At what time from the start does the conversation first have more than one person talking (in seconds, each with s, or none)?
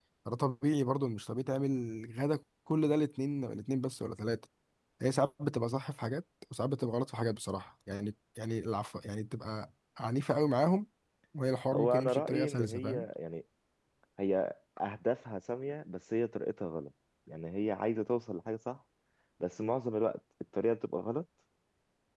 11.7 s